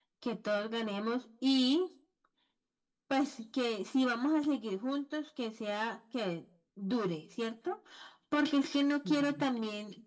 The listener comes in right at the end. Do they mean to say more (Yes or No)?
No